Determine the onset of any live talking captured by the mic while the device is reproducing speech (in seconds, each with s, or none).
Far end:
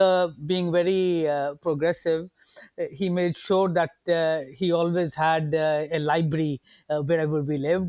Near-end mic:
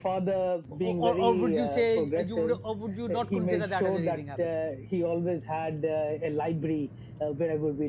0.7 s